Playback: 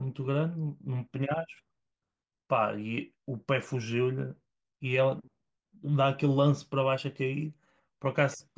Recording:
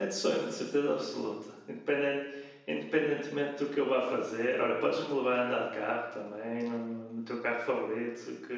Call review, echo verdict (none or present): none